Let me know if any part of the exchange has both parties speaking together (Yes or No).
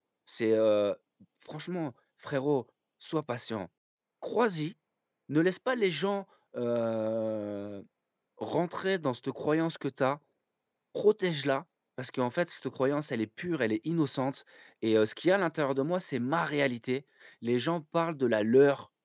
No